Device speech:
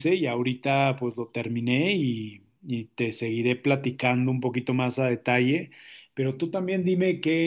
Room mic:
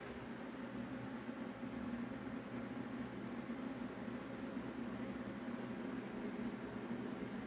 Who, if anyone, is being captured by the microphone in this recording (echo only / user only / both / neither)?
neither